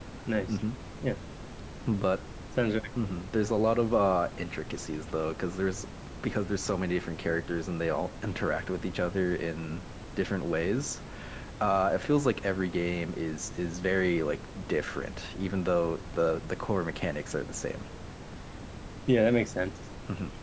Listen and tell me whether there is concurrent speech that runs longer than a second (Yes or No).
No